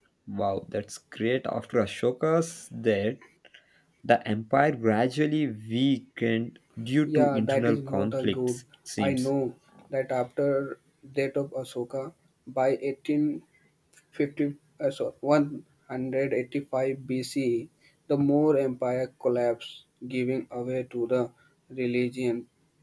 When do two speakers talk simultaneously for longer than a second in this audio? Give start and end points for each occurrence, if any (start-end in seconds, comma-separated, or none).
7.1-8.6